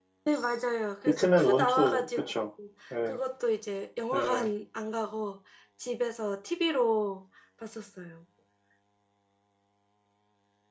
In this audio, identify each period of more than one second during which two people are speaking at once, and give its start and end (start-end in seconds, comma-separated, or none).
1.1-2.3